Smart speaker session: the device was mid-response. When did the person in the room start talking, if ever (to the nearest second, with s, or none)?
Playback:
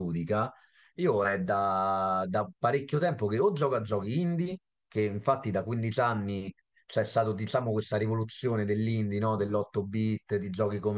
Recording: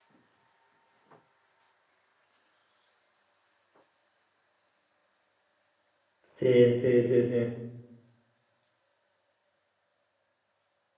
6 s